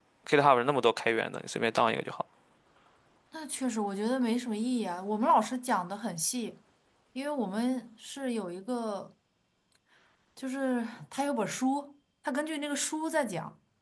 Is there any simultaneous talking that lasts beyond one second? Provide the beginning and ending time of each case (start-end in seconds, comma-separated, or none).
none